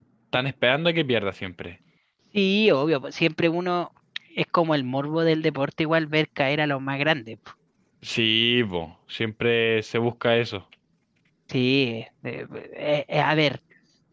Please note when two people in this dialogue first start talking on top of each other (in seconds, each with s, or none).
none